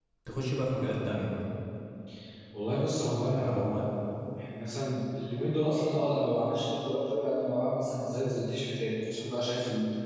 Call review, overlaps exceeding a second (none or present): none